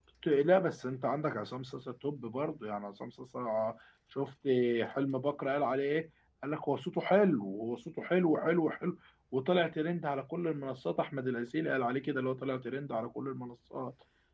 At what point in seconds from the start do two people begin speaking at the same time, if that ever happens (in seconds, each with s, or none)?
none